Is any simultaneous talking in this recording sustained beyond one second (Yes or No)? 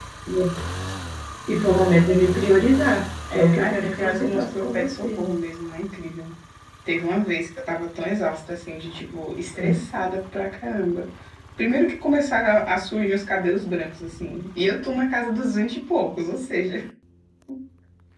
Yes